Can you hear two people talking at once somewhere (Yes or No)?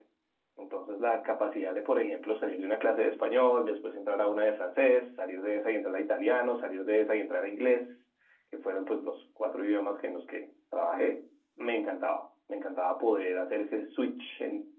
No